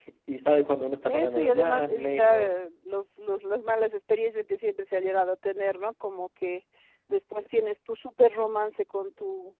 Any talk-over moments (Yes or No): Yes